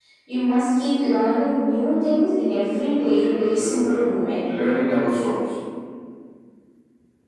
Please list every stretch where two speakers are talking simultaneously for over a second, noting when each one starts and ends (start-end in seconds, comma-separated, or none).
2.9-4.2